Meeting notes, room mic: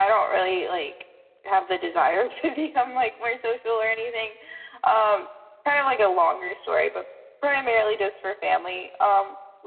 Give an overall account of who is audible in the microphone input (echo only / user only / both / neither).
echo only